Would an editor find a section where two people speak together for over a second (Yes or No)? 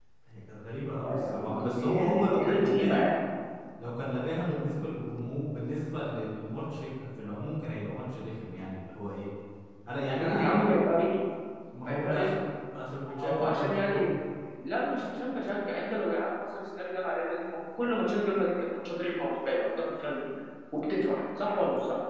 Yes